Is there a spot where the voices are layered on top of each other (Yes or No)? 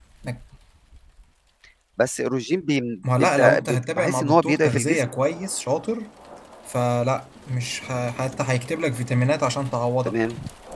Yes